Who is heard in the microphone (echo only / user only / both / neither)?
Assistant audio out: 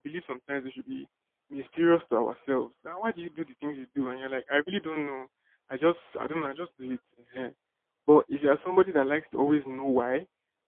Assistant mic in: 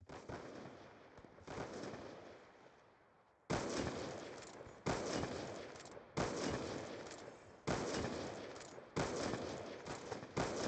neither